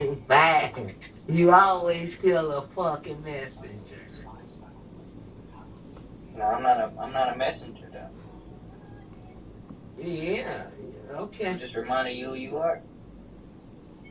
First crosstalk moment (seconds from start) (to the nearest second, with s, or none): none